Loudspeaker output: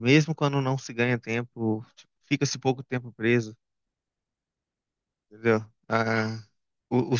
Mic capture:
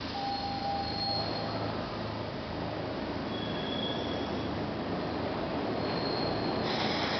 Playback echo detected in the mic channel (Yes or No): No